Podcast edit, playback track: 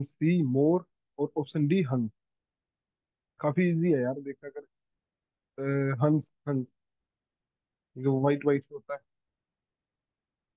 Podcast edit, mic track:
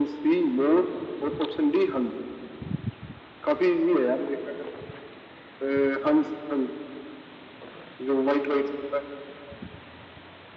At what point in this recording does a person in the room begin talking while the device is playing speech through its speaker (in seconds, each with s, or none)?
none